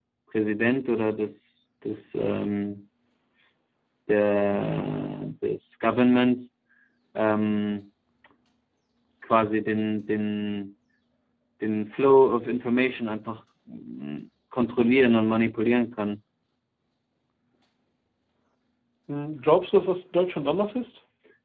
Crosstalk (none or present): none